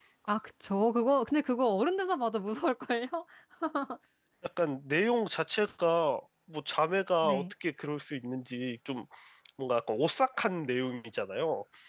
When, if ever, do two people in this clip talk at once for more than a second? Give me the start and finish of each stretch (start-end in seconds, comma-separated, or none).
none